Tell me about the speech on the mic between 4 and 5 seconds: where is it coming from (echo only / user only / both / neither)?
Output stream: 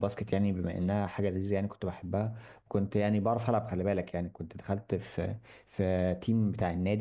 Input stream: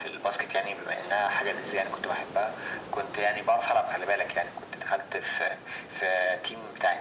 echo only